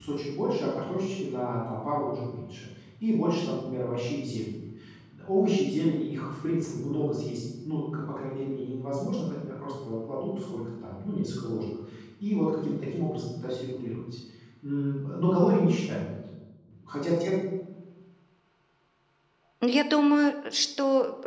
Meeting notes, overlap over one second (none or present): none